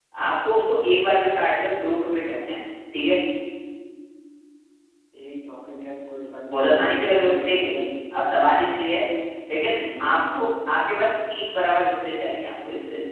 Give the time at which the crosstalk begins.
6.5 s

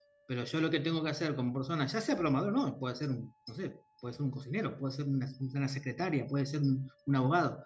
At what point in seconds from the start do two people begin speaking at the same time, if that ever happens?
none

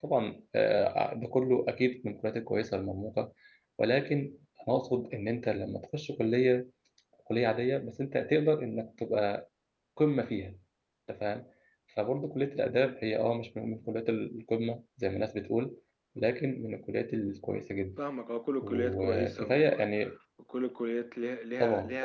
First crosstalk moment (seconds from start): 18.6 s

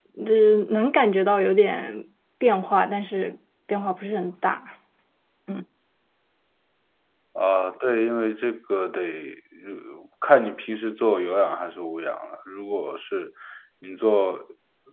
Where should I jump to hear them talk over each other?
none

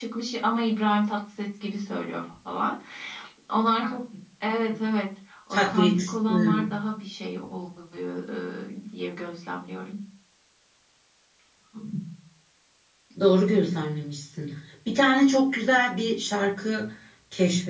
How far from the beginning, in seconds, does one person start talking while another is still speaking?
5.5 s

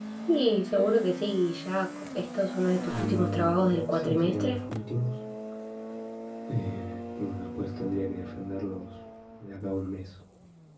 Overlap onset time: 2.9 s

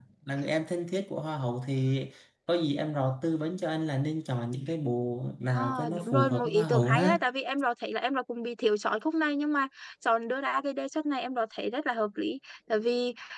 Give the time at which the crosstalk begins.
5.5 s

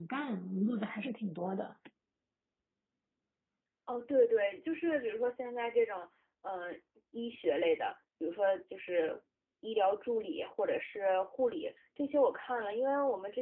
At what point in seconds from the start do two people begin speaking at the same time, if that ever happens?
none

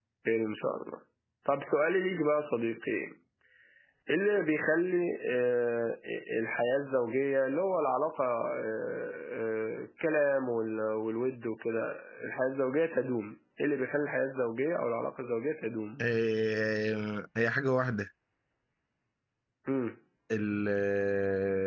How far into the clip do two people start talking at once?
none

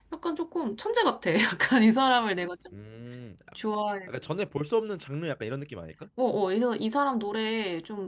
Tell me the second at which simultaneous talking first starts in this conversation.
none

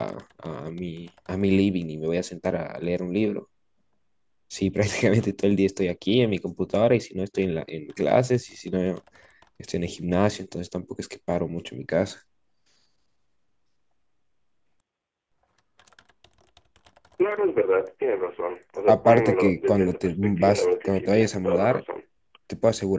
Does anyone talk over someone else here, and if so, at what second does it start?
18.9 s

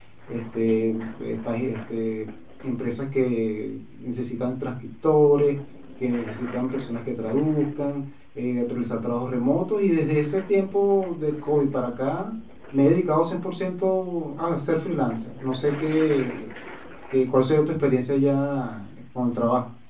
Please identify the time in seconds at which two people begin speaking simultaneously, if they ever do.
none

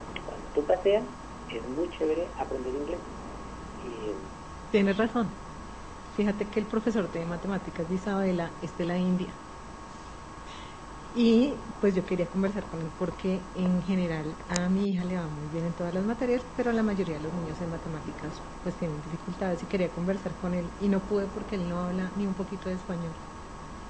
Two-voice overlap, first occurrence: none

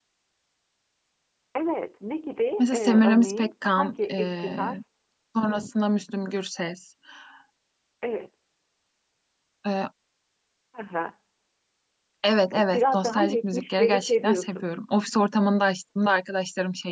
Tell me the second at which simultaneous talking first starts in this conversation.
2.6 s

